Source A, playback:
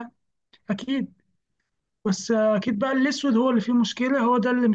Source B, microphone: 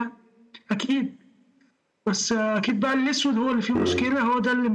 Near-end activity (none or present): present